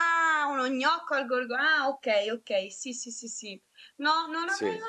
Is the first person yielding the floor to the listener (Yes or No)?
No